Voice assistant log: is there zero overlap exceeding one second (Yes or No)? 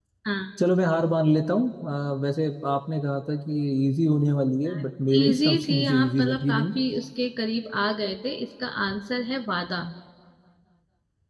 No